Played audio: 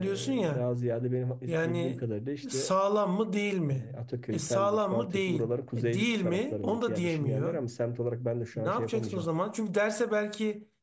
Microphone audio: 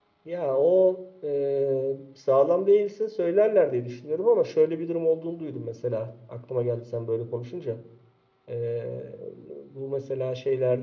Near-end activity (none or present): present